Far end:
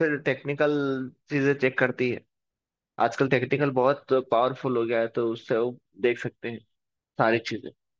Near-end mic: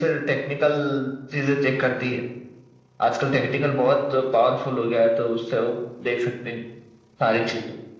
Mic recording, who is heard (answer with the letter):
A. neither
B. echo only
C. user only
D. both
B